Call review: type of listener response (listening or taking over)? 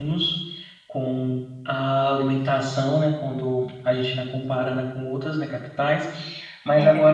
listening